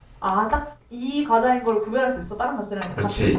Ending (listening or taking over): taking over